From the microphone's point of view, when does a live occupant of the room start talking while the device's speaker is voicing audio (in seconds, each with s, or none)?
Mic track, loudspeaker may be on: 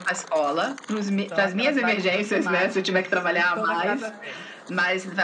1.1 s